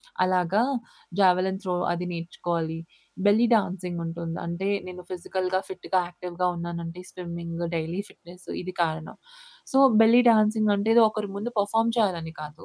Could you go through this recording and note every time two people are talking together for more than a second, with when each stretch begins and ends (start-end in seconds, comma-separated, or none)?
none